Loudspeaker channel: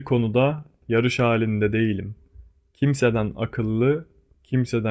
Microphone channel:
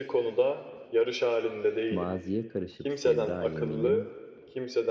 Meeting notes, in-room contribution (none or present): present